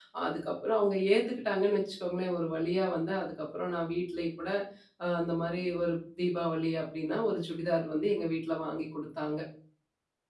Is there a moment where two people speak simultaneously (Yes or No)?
No